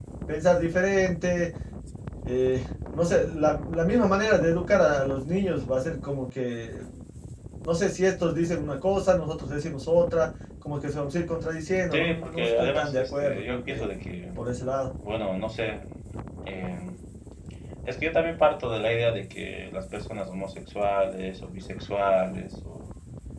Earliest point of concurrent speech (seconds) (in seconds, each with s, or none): 11.9 s